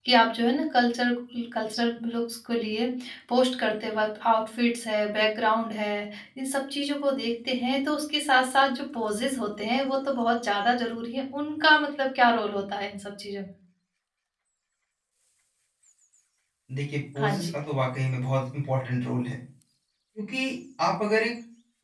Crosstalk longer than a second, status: none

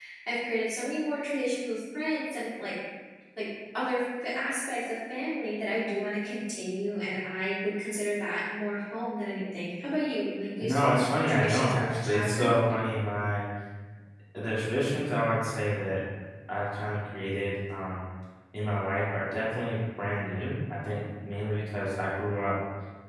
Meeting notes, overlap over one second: present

